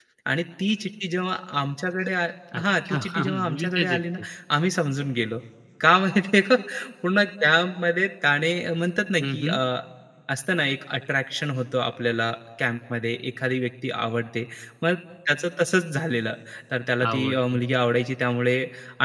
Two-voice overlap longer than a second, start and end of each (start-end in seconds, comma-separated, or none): 2.5-4.0